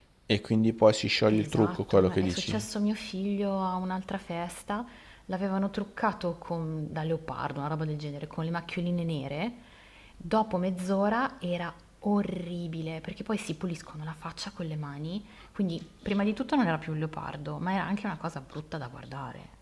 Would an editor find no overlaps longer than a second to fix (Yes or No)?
No